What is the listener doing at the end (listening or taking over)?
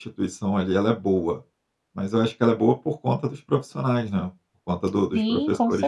taking over